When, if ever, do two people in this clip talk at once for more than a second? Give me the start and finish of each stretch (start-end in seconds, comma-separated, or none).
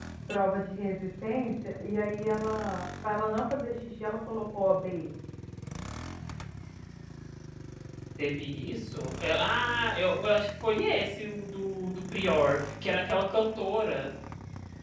none